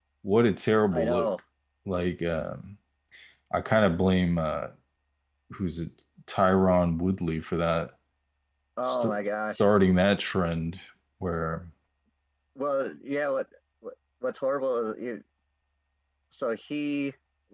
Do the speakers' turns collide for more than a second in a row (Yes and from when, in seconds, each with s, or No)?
No